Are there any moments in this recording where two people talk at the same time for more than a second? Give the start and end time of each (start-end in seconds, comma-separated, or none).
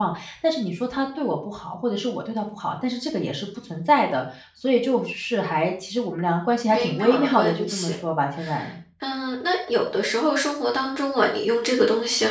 6.7-7.9